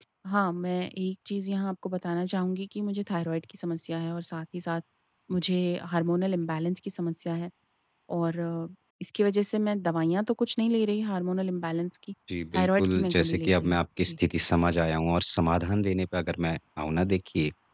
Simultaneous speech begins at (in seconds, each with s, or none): 12.6 s